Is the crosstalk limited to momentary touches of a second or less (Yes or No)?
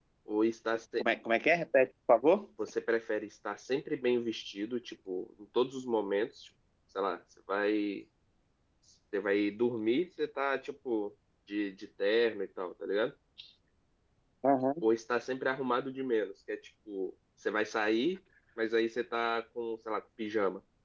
Yes